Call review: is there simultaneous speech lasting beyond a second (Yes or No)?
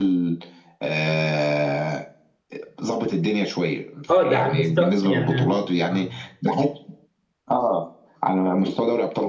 Yes